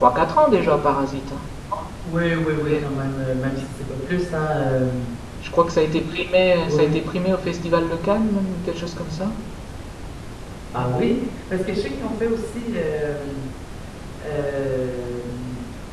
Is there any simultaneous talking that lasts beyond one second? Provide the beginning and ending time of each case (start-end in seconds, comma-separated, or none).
none